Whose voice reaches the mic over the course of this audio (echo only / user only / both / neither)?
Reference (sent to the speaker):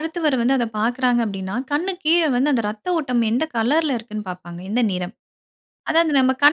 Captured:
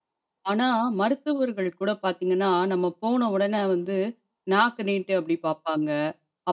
user only